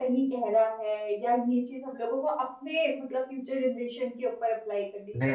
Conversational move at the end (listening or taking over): taking over